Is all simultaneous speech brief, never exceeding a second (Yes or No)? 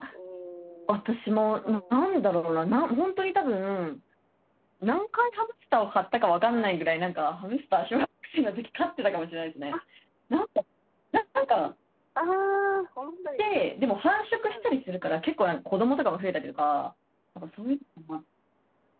Yes